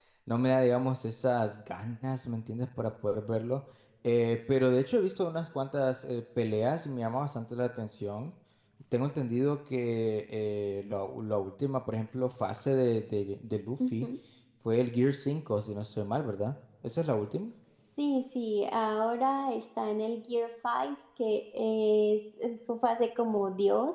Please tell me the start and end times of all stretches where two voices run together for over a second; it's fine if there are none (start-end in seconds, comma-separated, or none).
none